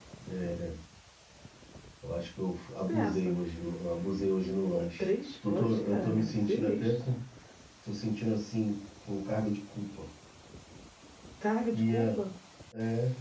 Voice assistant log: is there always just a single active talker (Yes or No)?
No